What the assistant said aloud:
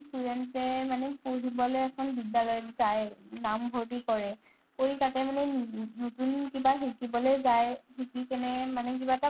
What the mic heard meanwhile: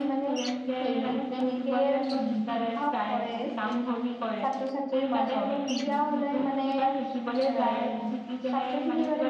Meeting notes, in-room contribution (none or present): present